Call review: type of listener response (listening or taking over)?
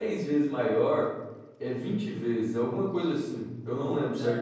taking over